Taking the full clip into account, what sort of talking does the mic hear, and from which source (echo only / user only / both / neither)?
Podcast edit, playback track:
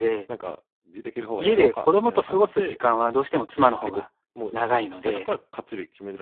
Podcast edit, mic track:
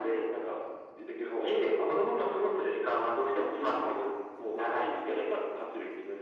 echo only